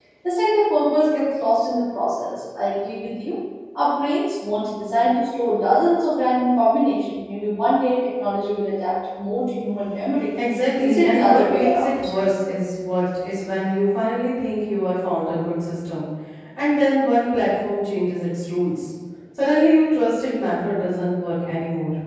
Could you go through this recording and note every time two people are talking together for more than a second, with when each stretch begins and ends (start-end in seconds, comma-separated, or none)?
10.8-12.1